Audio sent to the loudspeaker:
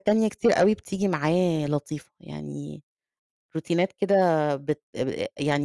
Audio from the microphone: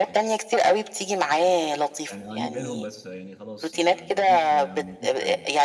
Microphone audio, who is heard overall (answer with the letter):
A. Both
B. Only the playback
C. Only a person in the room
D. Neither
A